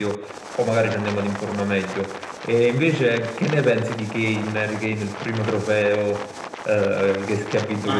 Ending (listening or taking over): taking over